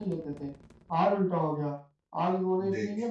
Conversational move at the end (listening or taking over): listening